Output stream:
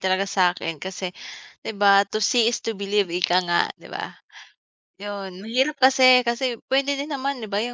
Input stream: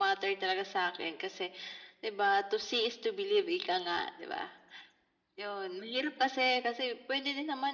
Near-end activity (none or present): none